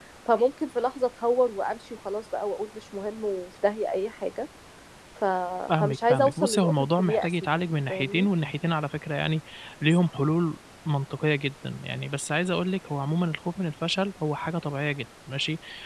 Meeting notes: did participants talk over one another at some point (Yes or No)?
Yes